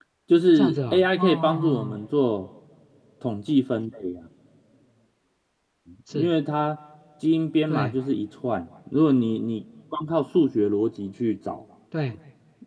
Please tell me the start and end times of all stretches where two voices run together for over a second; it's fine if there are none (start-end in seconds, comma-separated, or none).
0.6-2.0